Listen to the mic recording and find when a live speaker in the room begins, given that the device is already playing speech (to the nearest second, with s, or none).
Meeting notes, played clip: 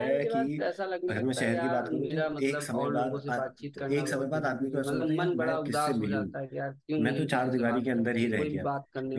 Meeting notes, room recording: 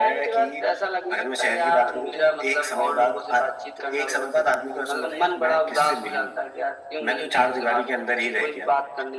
none